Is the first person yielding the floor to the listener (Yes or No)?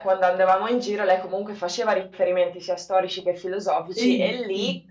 No